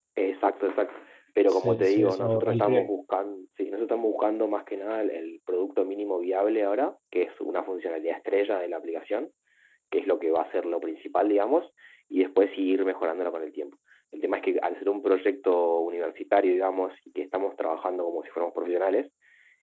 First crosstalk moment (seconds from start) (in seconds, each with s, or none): 1.5 s